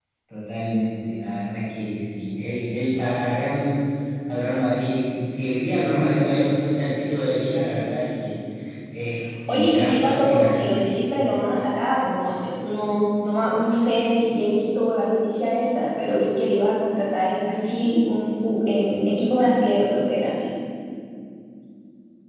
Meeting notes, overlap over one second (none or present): present